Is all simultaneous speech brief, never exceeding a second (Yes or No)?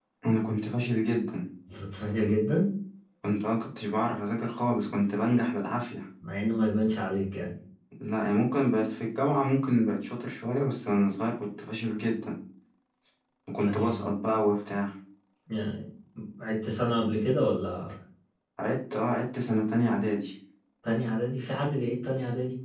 Yes